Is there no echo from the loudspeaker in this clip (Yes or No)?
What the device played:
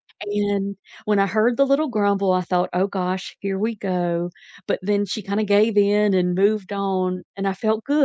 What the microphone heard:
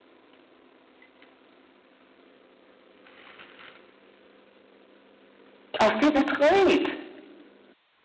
Yes